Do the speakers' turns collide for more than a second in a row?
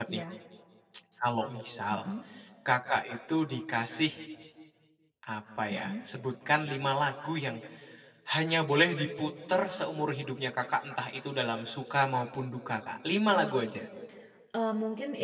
No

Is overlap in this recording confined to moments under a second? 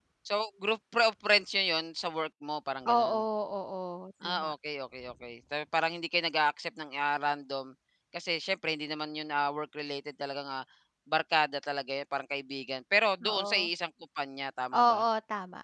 Yes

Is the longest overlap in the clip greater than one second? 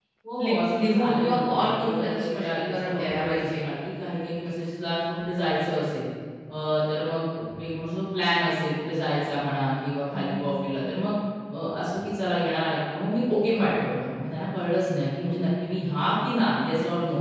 Yes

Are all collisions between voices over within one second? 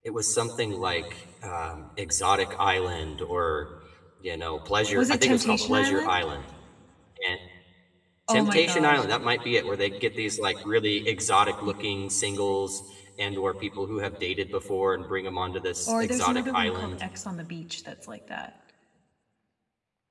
No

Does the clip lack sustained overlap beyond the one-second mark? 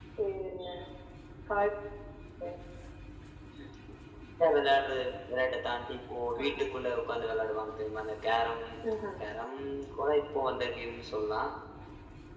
Yes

